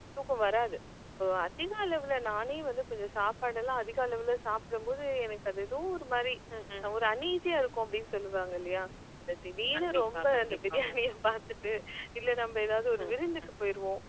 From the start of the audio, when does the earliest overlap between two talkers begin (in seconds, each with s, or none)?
9.7 s